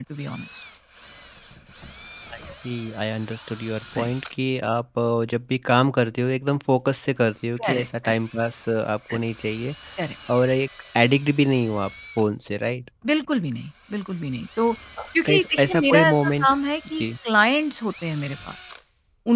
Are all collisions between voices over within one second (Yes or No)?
No